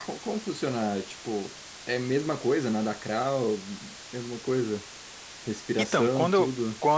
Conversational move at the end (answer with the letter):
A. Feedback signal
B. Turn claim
B